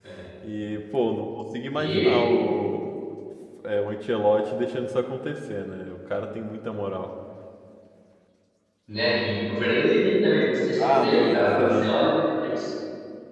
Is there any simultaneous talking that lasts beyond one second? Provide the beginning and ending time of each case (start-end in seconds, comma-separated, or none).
10.8-12.2